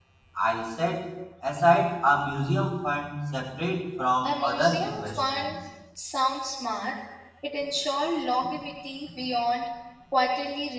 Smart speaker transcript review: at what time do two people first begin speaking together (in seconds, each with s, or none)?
4.1 s